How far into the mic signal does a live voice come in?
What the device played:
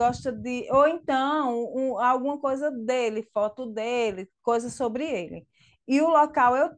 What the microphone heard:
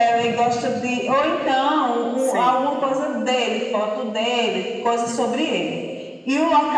2 s

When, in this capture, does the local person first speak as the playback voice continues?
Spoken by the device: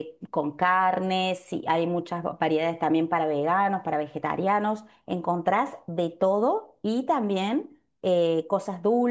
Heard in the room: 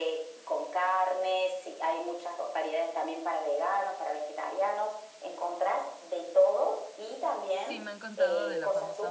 8 s

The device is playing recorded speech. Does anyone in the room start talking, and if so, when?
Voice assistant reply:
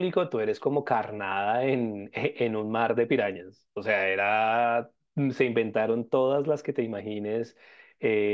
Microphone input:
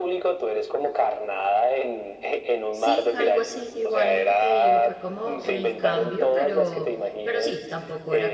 3 s

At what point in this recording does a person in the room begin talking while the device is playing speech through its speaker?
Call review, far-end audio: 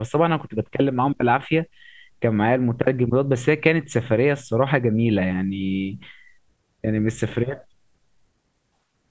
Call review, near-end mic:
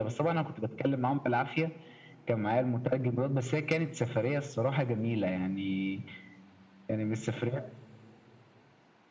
none

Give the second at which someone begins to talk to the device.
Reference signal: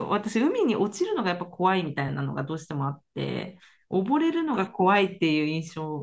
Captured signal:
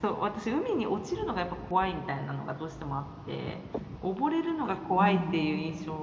5 s

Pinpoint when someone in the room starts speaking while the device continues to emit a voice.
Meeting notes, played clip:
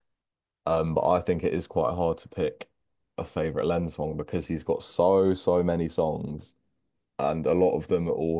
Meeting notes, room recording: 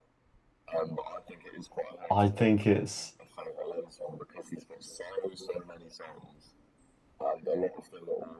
2 s

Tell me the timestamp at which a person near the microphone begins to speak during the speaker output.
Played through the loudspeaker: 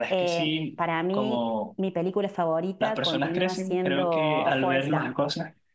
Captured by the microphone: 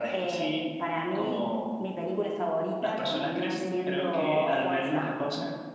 none

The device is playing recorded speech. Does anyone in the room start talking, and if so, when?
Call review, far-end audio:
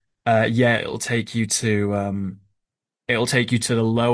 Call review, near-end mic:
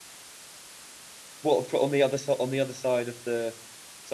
1 s

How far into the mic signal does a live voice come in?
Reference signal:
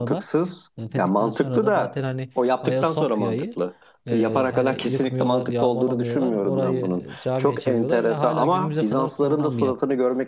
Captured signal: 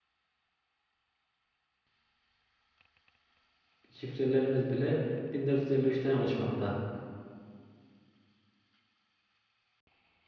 4 s

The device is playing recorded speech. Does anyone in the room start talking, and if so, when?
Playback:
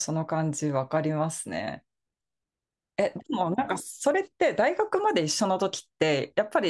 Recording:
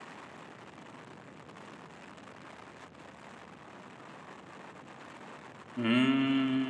6 s

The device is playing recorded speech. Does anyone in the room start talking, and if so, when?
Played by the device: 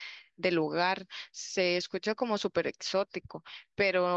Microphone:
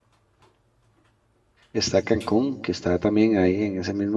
2 s

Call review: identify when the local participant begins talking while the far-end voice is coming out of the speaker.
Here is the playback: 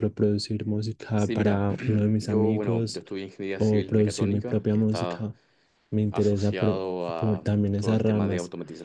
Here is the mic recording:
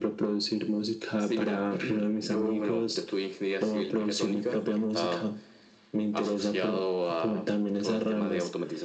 none

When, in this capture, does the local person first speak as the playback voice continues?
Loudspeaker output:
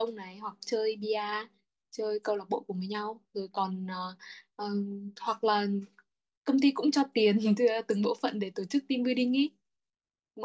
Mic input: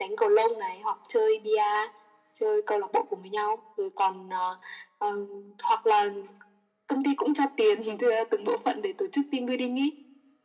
none

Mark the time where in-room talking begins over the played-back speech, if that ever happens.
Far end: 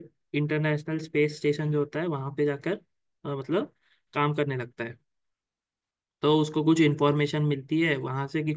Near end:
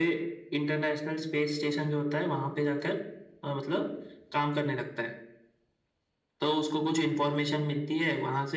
none

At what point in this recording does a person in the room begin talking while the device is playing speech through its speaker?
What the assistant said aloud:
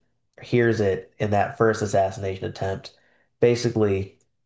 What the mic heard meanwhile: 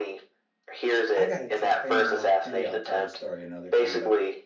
1 s

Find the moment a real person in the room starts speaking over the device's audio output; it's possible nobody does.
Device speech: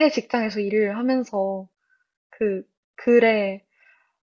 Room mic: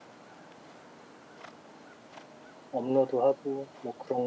3 s

